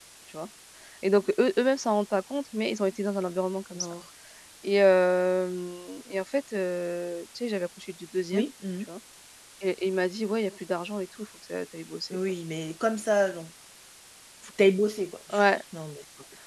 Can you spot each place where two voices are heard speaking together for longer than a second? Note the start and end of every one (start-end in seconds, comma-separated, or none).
none